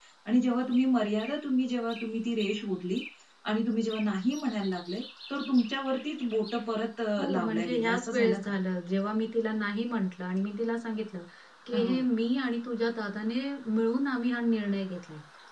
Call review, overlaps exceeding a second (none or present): present